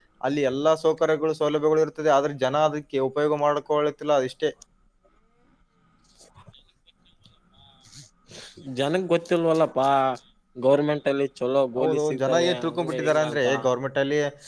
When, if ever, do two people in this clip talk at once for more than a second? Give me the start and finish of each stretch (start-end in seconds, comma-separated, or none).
11.8-13.4